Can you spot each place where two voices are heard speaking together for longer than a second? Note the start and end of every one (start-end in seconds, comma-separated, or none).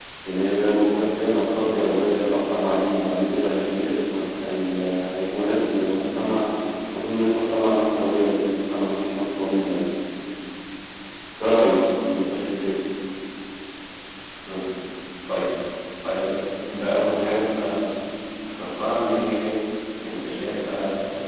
none